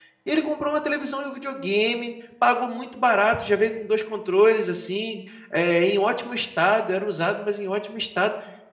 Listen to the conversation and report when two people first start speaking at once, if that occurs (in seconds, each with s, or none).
none